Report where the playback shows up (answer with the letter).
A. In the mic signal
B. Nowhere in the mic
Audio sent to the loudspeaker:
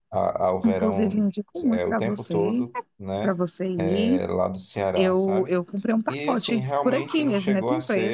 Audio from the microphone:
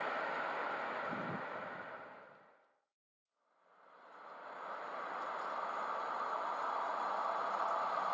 B